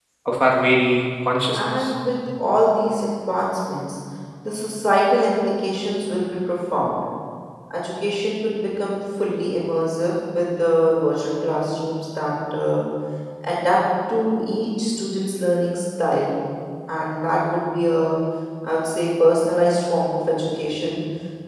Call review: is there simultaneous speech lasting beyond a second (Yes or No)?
No